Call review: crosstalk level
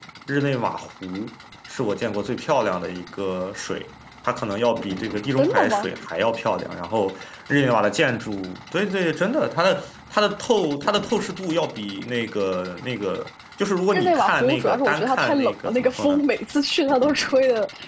present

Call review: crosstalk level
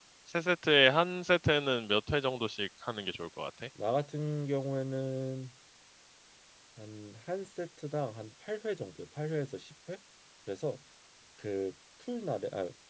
none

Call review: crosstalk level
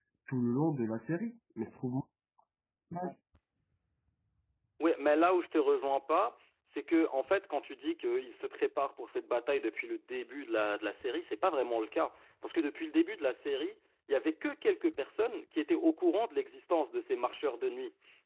none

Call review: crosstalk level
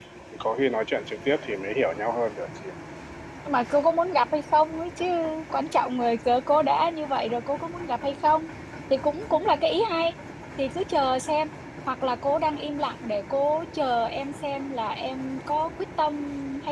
none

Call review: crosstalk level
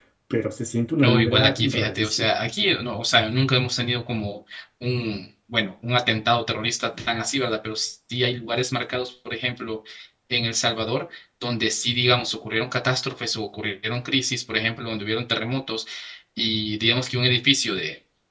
present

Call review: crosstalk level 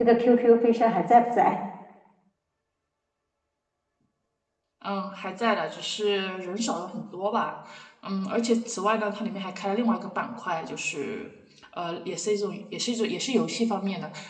none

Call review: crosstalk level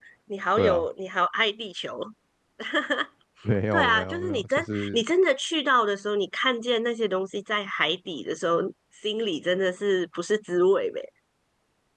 present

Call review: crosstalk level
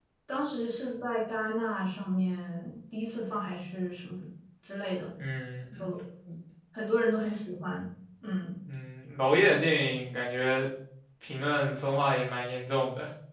none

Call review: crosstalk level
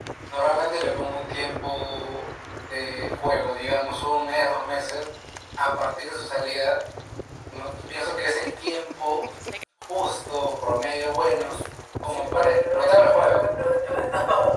present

